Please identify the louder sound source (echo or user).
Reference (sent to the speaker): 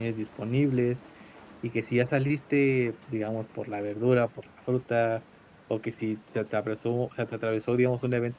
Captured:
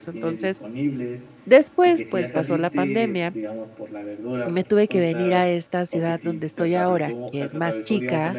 user